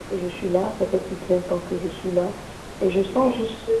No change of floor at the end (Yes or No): Yes